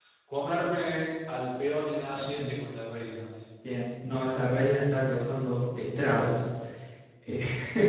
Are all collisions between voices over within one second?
Yes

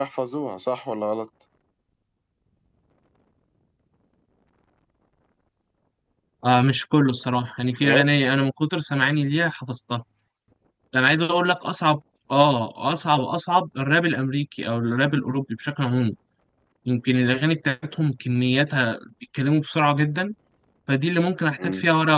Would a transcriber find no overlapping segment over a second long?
Yes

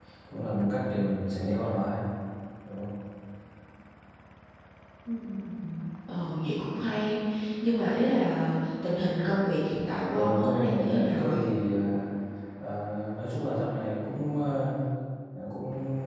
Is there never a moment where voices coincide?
No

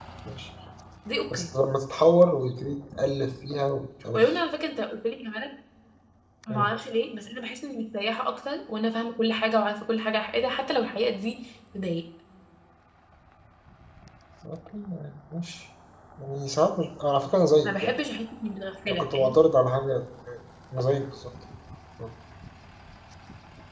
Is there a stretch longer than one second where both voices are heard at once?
No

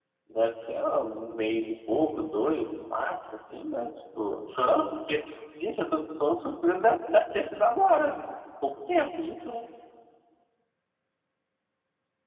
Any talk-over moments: No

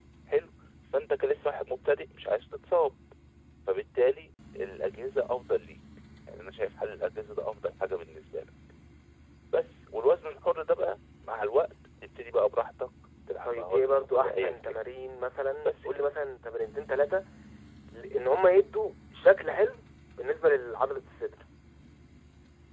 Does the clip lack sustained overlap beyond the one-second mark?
No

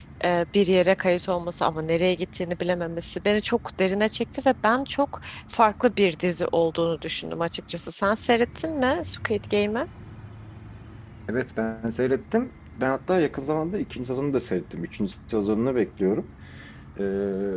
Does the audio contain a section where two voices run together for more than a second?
No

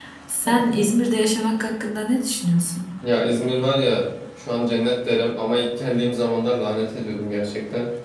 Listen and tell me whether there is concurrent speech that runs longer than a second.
No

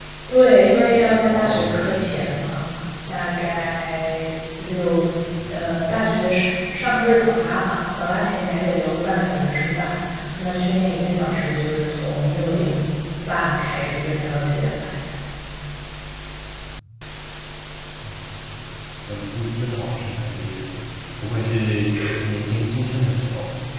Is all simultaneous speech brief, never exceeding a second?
No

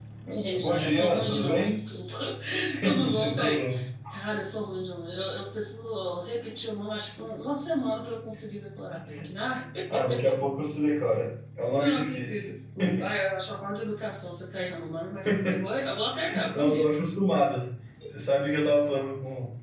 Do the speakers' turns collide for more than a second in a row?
Yes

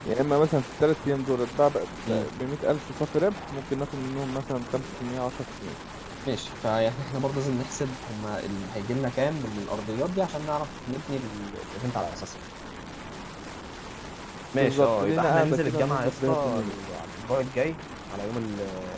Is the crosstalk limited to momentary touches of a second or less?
No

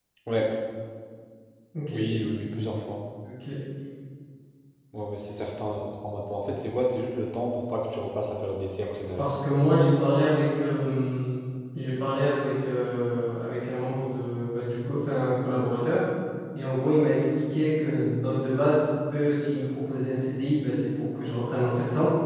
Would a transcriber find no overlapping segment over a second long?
Yes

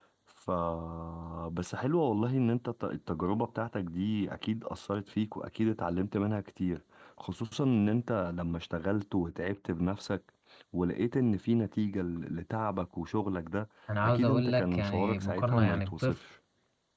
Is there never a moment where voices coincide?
No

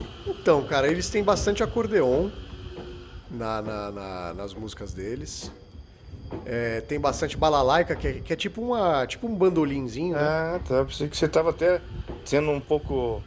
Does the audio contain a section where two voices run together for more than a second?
No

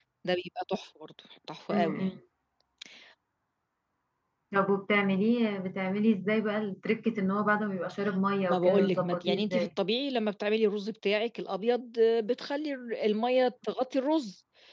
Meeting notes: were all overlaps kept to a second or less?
No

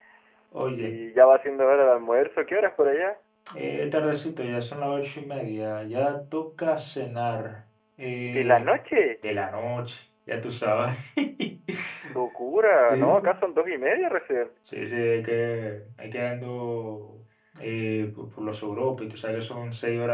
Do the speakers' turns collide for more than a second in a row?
No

